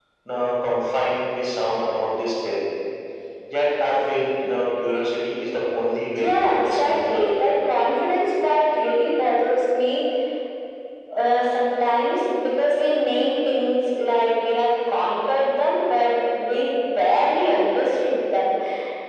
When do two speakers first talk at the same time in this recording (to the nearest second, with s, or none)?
6 s